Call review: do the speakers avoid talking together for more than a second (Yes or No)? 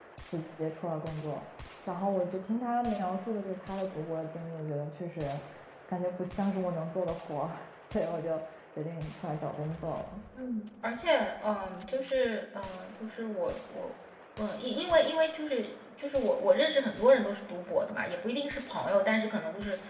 Yes